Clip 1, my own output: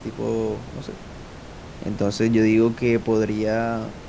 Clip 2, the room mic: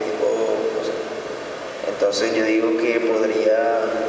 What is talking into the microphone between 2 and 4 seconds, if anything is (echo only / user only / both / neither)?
echo only